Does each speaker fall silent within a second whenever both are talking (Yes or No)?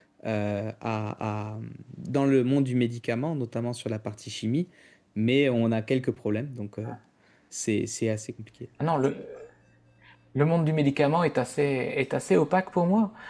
Yes